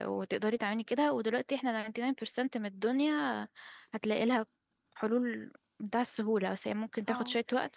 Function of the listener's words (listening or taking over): listening